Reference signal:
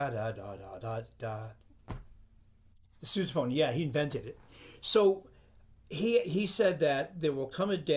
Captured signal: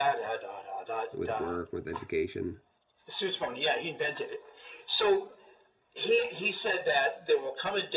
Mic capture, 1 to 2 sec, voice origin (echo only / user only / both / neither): both